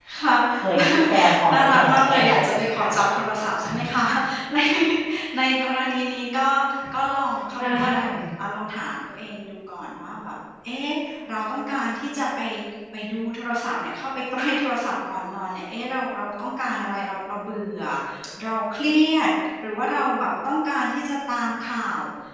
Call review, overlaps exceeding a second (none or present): present